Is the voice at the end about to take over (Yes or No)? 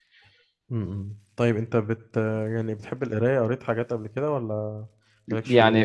Yes